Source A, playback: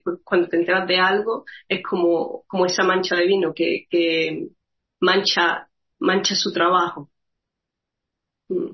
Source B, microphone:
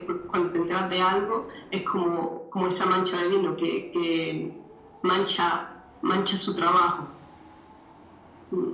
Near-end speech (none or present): none